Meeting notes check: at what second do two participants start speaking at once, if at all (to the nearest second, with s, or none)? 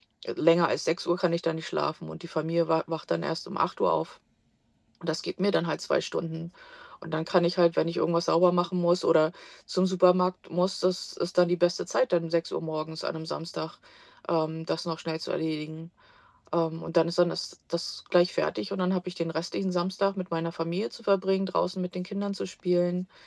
none